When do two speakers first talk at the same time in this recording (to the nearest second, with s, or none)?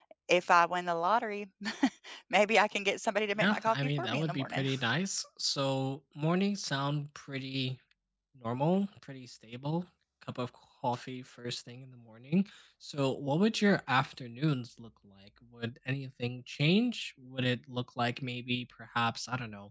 3 s